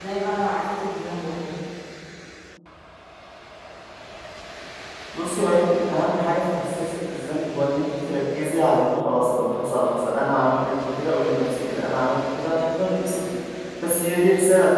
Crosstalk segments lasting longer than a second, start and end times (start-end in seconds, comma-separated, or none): none